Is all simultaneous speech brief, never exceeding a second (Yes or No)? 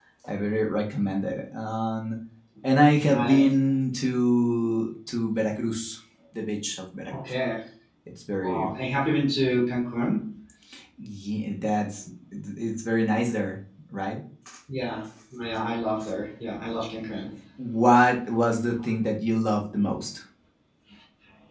Yes